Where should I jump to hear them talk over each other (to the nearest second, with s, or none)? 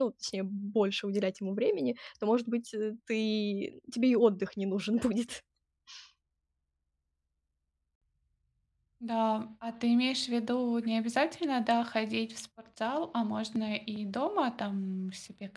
none